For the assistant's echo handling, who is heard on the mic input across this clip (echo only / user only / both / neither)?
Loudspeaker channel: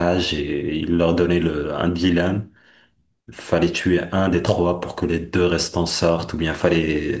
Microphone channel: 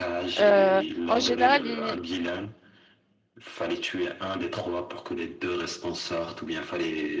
both